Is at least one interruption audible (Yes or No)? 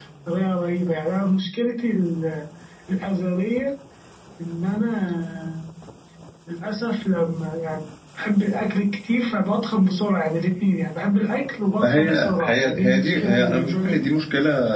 Yes